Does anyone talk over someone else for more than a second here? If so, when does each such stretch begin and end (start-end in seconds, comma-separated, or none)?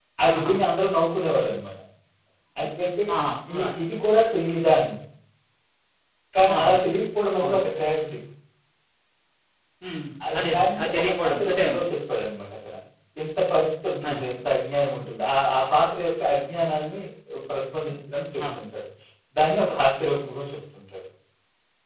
10.3-11.6